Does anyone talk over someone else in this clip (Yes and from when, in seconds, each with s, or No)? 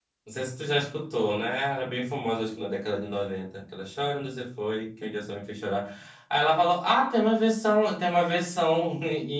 No